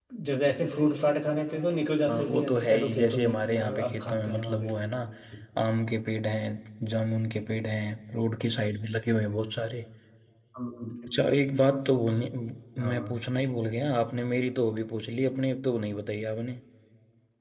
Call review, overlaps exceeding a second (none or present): present